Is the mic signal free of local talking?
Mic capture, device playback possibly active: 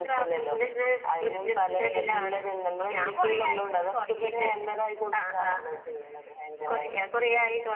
No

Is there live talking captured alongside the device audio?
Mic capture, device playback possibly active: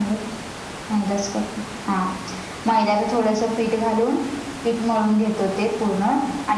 No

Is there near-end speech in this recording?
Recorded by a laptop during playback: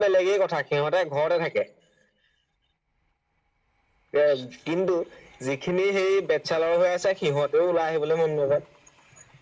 No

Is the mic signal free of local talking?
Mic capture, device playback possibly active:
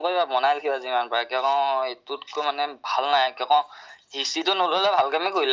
Yes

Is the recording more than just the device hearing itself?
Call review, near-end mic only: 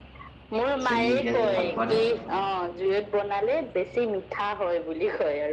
Yes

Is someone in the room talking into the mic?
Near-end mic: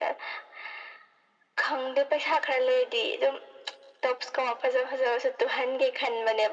No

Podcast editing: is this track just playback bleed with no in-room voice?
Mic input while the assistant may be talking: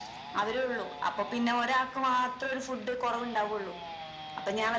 Yes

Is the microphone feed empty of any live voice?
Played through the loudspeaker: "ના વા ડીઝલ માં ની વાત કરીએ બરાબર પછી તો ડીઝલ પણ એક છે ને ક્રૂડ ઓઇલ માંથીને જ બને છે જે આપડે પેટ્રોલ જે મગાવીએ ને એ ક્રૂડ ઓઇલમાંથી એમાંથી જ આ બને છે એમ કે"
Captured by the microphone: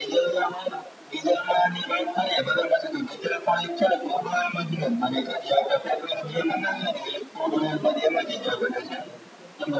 Yes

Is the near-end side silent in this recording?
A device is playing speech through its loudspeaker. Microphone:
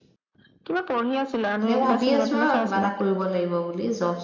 No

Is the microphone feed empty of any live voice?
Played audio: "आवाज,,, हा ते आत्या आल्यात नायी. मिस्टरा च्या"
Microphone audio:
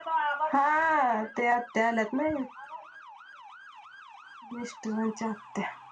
Yes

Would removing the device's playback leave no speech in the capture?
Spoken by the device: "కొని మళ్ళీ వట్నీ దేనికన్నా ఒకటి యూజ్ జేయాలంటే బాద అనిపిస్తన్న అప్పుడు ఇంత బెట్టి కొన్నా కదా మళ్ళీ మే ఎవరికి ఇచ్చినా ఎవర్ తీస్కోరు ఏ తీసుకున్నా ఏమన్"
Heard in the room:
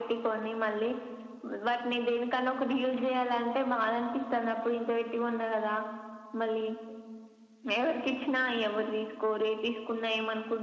Yes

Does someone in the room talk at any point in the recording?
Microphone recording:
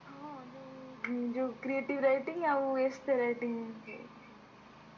No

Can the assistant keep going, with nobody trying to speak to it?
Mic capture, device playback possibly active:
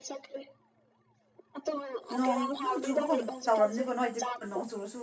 No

